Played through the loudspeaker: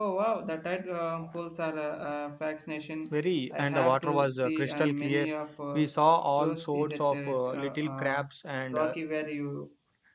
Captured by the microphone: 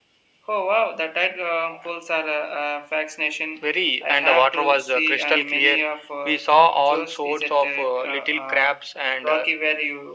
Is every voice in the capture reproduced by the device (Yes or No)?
Yes